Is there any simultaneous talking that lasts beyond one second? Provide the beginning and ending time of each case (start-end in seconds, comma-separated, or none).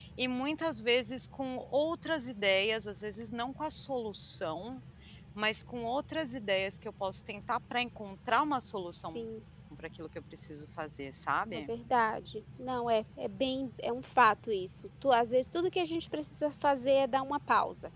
none